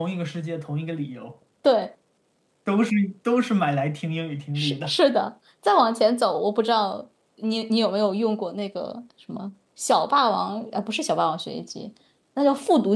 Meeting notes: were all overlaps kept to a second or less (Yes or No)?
Yes